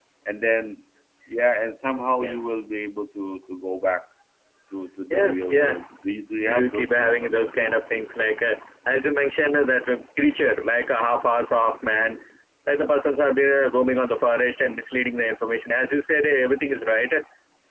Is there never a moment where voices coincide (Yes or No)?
No